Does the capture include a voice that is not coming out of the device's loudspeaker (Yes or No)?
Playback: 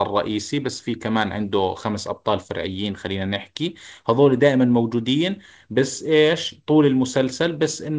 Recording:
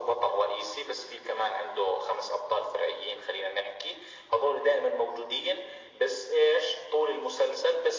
No